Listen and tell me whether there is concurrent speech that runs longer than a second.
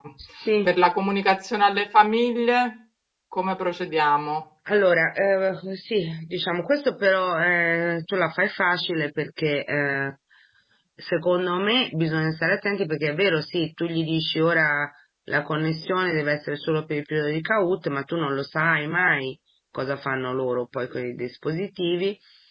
No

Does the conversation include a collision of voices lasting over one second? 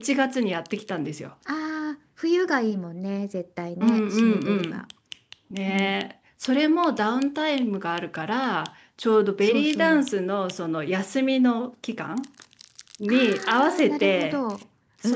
Yes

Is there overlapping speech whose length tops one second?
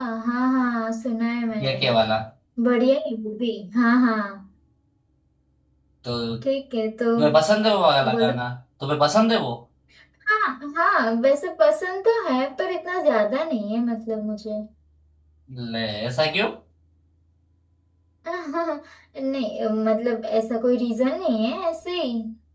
No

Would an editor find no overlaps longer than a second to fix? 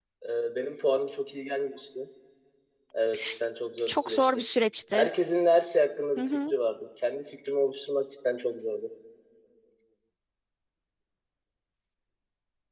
Yes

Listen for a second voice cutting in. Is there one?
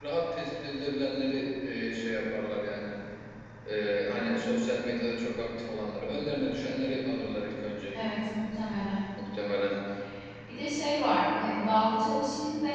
No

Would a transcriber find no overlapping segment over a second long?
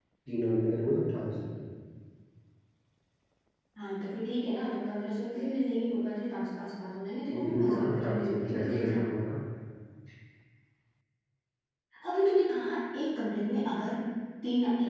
No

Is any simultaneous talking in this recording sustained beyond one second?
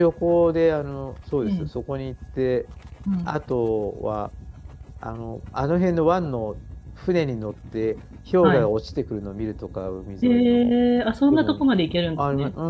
No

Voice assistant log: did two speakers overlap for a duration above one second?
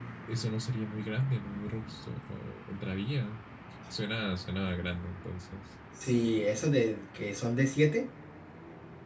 No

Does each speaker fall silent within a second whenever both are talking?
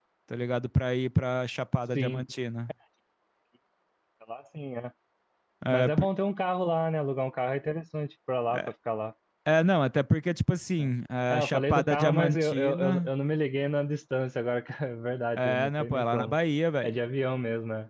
No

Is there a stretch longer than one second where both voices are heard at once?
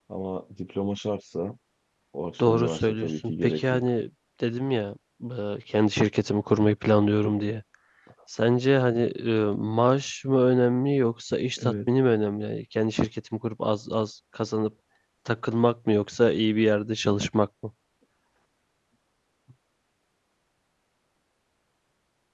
Yes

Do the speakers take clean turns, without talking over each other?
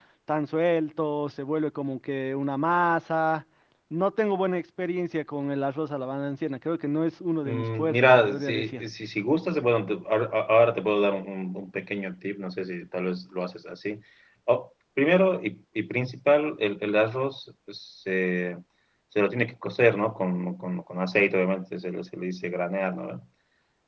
No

